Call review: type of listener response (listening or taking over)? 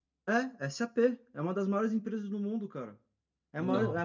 listening